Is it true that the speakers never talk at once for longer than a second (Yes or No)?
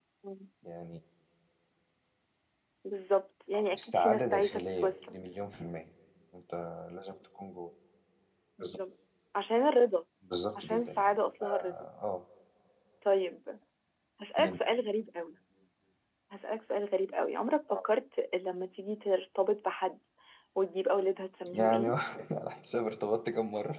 No